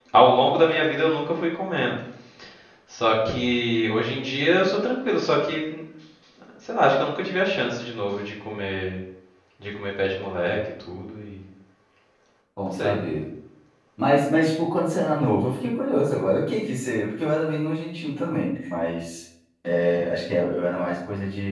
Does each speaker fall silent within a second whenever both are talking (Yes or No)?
Yes